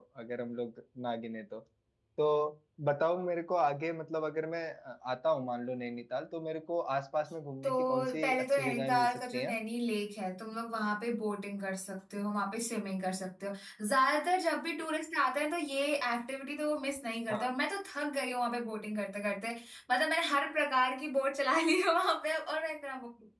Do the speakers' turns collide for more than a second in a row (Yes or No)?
Yes